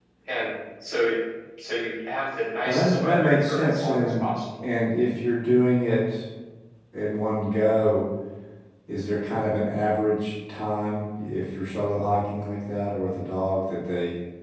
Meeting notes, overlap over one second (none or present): present